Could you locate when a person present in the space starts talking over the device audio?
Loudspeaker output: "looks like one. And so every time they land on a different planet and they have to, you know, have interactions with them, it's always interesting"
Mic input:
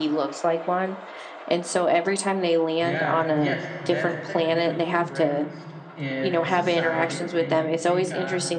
2.8 s

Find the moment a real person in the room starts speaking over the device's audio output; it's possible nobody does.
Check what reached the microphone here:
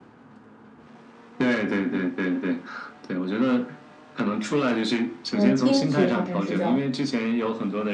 5.3 s

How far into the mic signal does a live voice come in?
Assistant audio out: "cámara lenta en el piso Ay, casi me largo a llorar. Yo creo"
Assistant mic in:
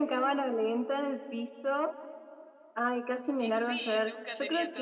3.4 s

